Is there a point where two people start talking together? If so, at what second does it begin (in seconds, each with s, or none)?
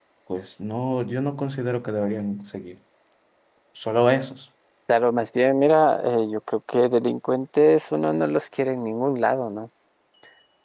none